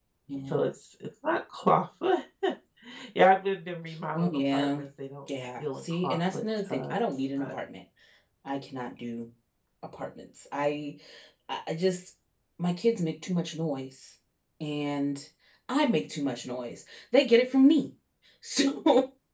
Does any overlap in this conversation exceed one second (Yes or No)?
Yes